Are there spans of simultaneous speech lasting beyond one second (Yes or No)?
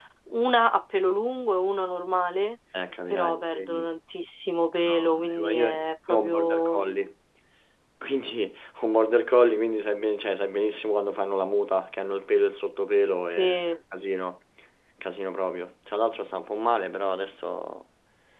Yes